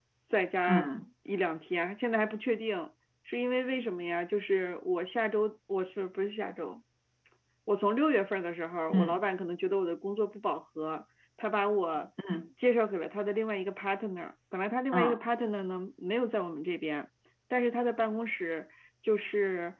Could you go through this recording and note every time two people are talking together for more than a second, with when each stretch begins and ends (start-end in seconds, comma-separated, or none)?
none